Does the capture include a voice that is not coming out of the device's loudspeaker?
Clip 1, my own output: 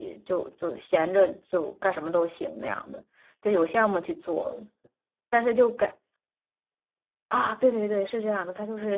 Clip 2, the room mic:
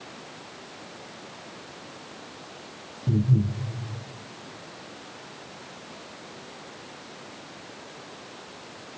Yes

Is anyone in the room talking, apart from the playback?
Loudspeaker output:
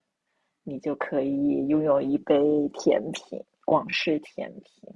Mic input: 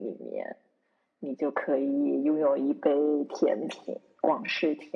No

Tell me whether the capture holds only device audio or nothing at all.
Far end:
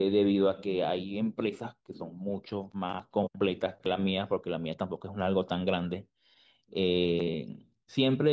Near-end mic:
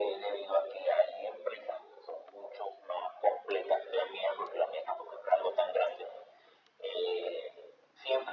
Yes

